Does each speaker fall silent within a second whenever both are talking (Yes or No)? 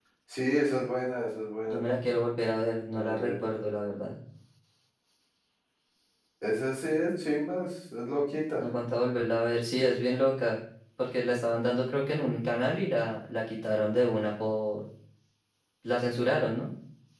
Yes